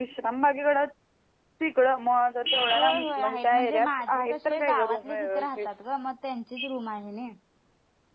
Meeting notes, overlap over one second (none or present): present